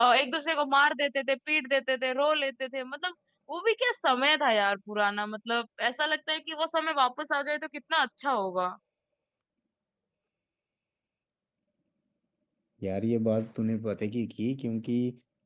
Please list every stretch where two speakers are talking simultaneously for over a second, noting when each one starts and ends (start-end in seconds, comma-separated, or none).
none